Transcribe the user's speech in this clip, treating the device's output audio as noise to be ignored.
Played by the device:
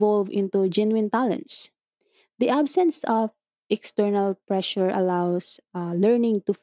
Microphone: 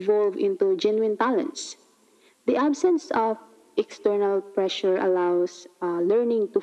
none

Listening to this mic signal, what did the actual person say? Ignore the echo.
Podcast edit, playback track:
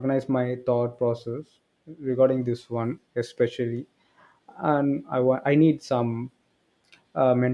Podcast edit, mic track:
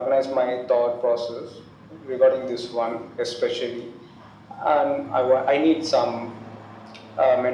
none

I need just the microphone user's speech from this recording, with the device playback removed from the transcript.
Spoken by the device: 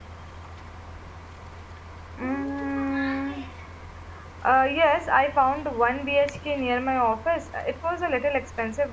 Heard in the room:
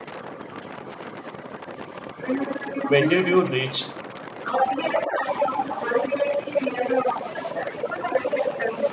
When did you reach?

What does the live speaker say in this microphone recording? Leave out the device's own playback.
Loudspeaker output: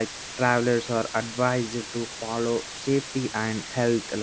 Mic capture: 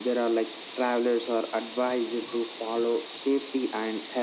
none

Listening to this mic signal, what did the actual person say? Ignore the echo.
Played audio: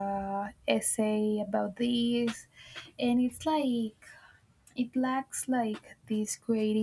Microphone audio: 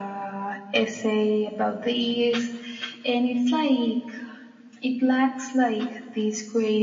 none

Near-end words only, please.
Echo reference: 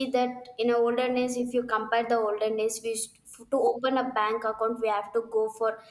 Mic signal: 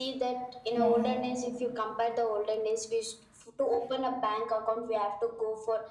Yes.

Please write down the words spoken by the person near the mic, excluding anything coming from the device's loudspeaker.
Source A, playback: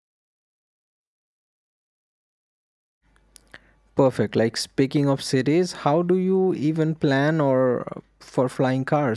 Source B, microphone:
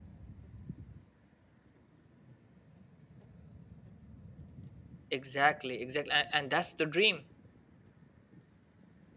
Exactly, exactly, and, and that's the dream.

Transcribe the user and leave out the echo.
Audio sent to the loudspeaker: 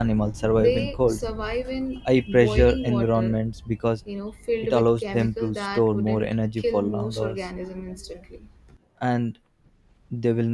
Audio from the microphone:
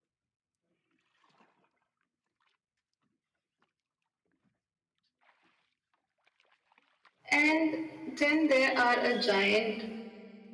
And then there are a giant

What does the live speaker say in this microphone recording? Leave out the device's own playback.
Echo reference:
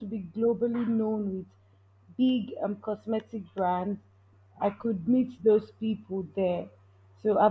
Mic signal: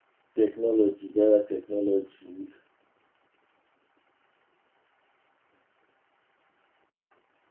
technology, better technology.

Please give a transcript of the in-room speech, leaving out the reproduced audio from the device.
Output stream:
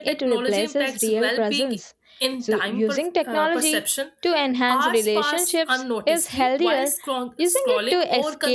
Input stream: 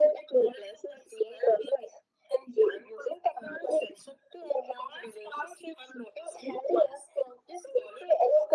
none

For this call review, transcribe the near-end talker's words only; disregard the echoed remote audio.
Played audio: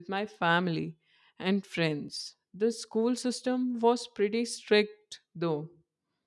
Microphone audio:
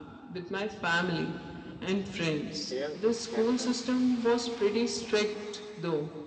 Here in Canada,

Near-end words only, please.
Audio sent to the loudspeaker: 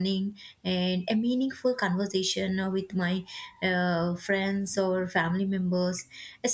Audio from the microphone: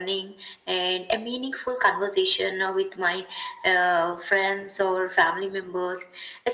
none

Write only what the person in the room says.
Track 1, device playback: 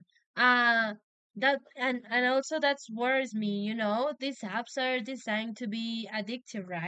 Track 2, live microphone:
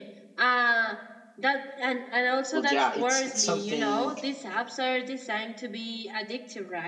but yeah, it's it's something

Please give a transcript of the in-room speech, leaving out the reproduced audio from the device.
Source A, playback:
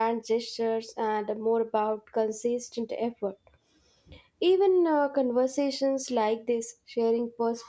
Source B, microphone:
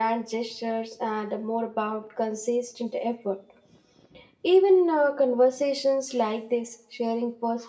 none

